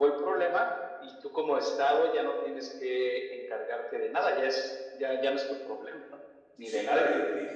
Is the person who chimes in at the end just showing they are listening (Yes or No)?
No